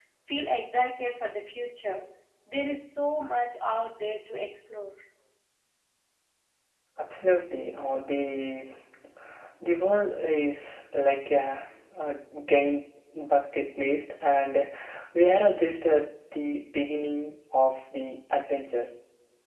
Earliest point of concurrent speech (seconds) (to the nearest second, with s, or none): none